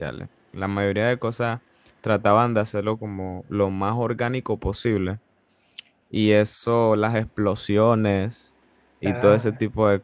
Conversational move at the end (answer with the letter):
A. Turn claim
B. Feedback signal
B